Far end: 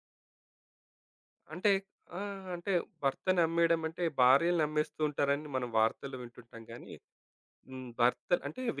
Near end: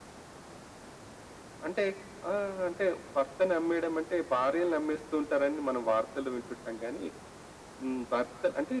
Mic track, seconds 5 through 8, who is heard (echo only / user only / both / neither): echo only